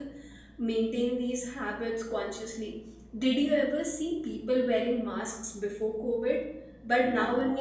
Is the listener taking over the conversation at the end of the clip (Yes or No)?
No